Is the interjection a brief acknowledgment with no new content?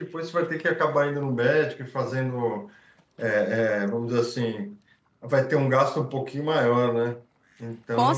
No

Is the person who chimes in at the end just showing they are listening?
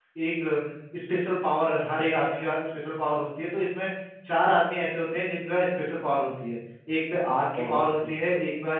Yes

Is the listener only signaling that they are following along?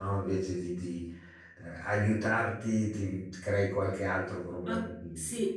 No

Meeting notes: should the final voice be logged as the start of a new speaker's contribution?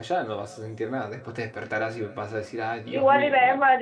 Yes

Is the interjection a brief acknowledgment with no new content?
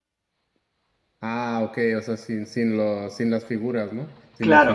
No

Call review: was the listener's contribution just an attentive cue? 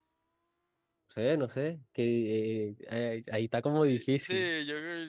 No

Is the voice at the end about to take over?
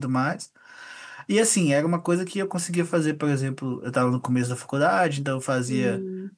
No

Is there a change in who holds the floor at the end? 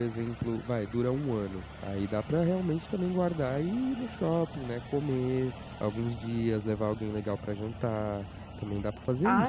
Yes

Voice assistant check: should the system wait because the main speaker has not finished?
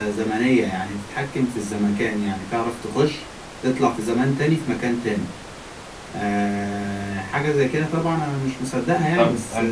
No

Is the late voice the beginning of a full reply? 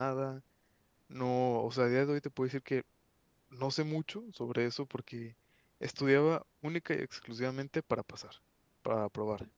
No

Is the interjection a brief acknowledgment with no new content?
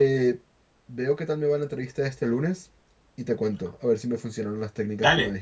No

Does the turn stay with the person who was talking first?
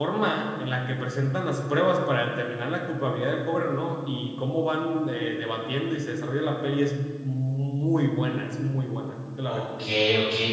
No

